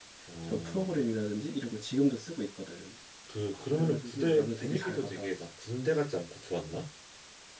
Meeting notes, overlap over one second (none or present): present